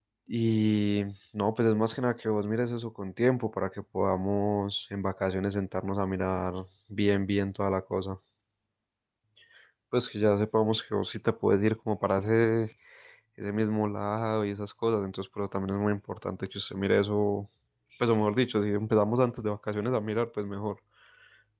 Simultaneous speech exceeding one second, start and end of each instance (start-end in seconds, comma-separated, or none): none